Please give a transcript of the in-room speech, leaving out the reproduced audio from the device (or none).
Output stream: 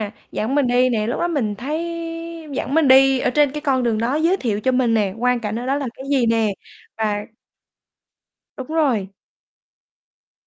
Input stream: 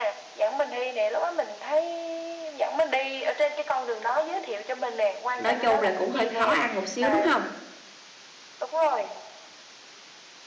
nói chung là cũng hơi khó ăn một xíu, đúng hông?